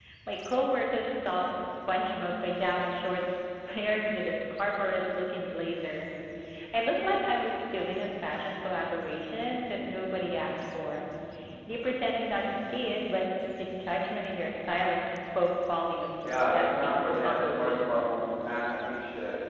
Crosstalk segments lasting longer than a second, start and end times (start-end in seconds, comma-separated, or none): 16.2-17.7